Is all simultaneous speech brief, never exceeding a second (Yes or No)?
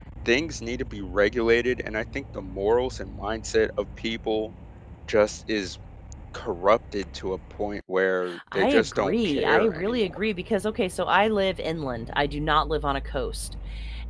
No